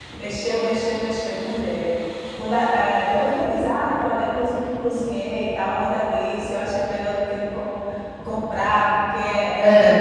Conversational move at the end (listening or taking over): listening